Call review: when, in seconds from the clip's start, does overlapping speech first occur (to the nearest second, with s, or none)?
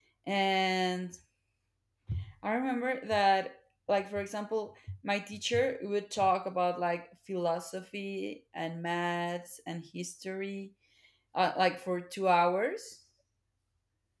none